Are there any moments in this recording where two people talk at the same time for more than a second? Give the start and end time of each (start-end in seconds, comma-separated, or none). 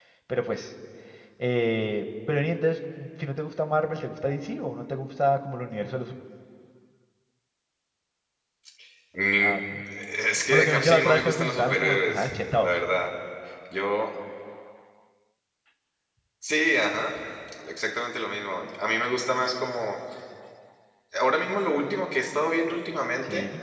10.5-12.8